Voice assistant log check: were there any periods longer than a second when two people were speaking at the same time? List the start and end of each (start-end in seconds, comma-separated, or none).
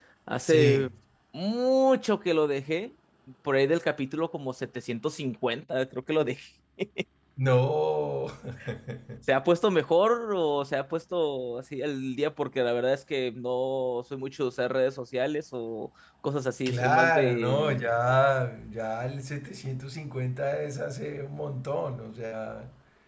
16.7-17.9